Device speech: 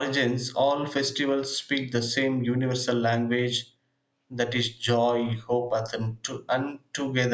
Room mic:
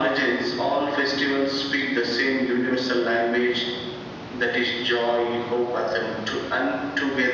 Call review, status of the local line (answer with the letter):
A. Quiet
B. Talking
A